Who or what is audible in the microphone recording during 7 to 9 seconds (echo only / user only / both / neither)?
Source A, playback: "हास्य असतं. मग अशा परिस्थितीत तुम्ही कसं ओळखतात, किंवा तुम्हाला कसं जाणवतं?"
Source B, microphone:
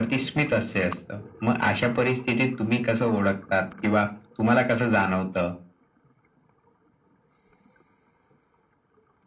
neither